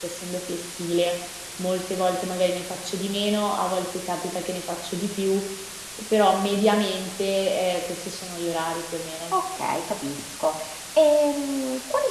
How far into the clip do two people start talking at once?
none

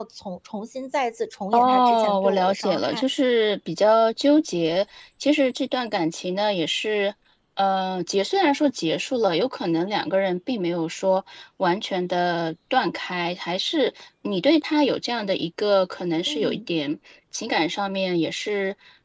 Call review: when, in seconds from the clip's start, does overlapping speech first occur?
1.5 s

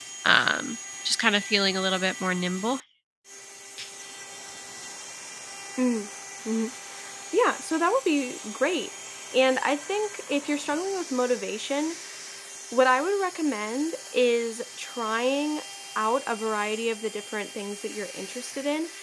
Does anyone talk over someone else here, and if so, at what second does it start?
none

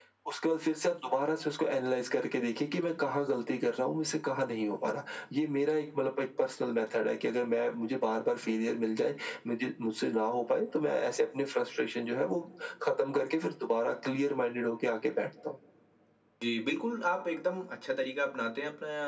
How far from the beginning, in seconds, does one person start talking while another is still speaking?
none

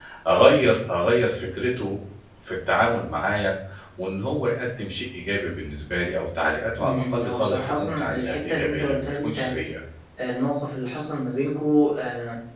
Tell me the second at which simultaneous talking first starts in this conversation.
6.8 s

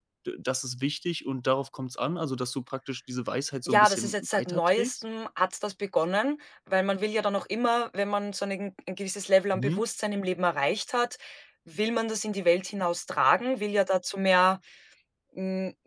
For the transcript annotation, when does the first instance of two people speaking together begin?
3.7 s

